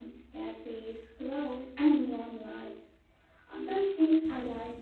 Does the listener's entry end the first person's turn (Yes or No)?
No